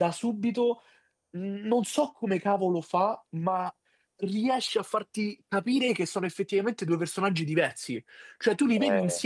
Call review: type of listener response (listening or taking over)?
listening